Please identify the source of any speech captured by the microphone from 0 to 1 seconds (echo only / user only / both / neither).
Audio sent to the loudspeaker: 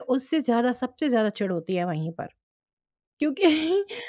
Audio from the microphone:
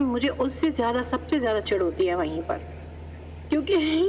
echo only